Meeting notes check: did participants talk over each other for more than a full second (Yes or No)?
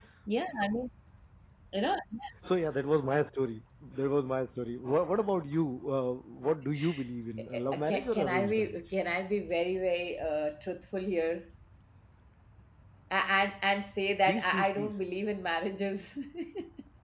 Yes